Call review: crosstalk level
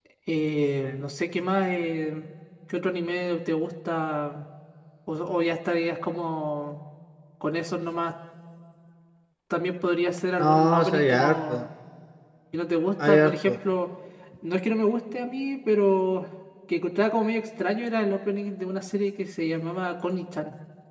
present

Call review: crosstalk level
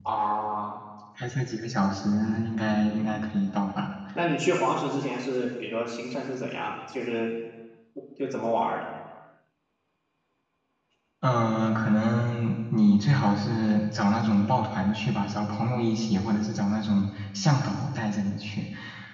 none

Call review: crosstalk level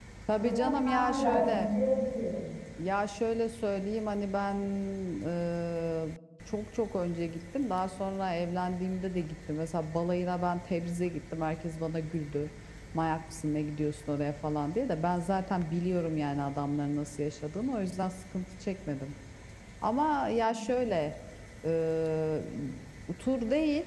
present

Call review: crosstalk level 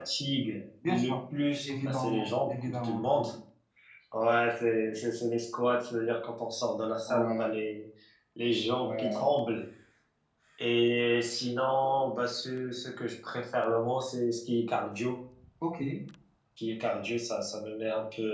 present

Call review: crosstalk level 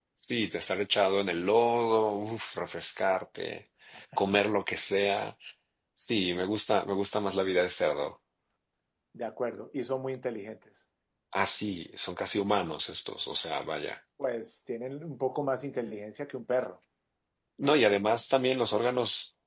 none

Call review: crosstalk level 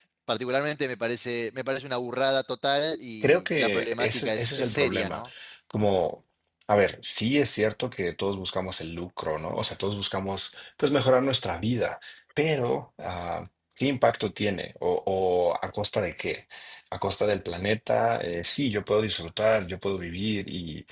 present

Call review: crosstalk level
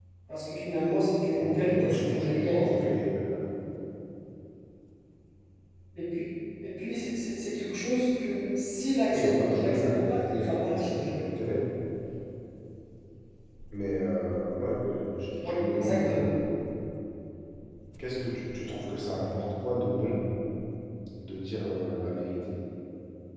present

